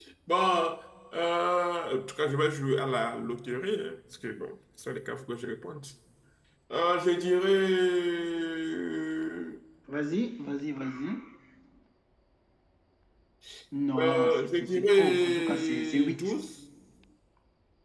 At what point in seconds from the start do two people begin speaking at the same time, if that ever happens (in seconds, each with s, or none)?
14.0 s